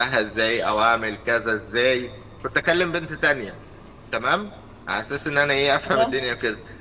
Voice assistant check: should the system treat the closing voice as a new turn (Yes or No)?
No